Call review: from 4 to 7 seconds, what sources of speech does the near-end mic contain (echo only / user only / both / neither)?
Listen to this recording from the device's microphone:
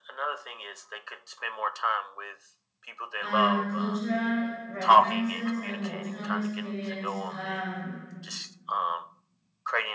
both